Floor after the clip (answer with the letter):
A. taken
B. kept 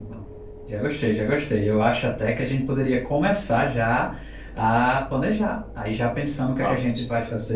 B